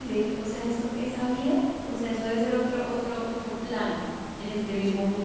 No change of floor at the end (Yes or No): Yes